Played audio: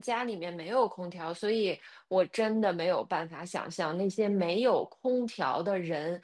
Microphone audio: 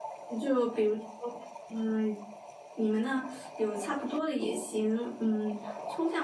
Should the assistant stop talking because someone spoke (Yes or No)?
Yes